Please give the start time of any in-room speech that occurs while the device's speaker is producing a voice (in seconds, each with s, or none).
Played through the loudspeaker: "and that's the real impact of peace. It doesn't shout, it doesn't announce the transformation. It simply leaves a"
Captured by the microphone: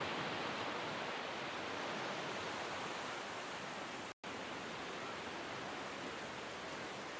none